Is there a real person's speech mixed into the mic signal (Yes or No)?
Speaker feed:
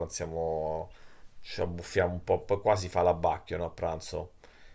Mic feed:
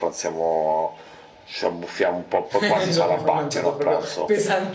Yes